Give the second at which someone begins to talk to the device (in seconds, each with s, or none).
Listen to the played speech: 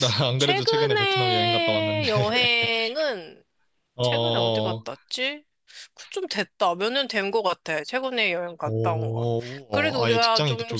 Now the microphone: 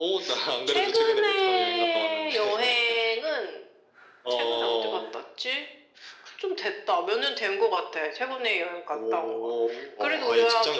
none